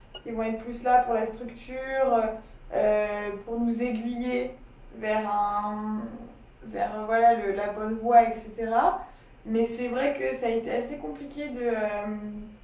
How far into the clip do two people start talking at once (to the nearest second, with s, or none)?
none